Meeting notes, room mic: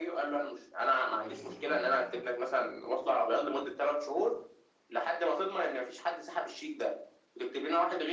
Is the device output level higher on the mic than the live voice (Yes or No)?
Yes